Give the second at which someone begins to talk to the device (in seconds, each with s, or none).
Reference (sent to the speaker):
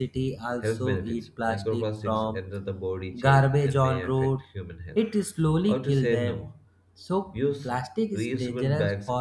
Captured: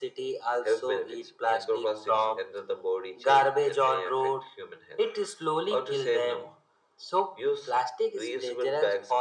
none